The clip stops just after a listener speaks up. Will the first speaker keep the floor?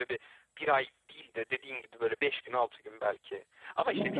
No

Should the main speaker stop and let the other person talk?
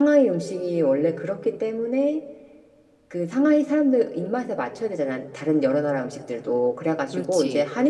No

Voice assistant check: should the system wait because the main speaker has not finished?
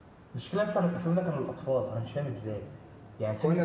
Yes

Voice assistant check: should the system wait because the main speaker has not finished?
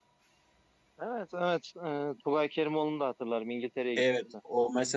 No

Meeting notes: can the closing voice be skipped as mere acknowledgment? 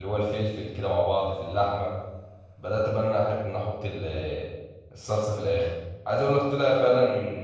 Yes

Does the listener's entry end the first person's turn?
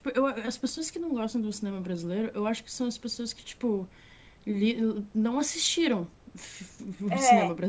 No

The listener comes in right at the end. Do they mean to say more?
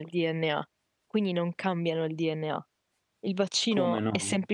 Yes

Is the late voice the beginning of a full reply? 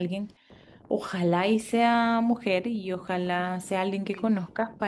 No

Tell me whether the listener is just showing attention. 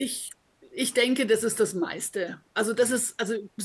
Yes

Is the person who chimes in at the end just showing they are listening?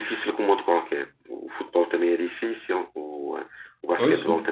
Yes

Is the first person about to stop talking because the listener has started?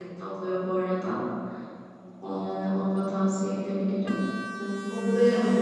Yes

